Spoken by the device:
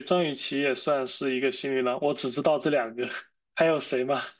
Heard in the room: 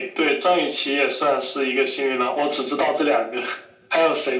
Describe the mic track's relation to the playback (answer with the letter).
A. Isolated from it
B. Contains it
B